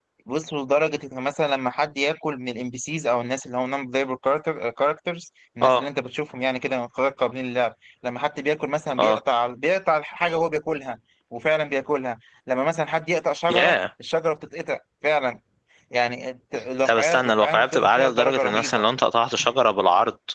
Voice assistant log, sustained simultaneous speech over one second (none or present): present